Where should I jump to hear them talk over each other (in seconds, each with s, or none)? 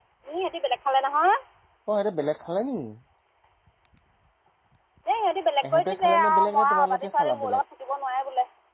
5.7 s